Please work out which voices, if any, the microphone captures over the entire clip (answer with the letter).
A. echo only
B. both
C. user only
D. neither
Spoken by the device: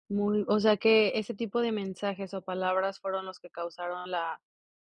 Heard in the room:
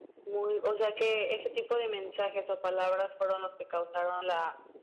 A